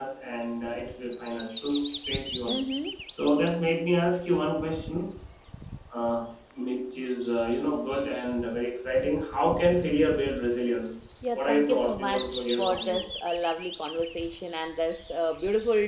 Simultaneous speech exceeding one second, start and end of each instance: 11.3-13.1

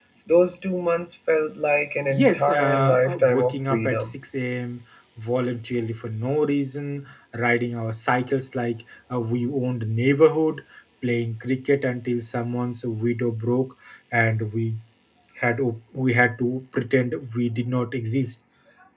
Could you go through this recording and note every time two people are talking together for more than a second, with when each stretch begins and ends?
2.1-4.1

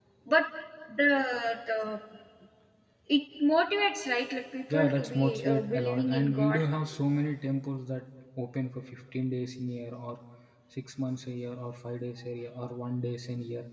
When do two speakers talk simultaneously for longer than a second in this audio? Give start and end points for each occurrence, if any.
4.7-6.6

